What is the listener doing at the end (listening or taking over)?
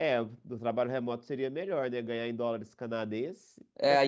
taking over